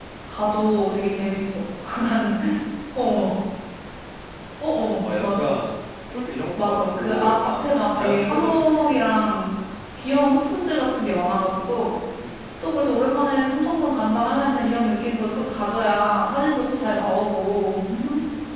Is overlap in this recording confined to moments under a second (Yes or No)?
No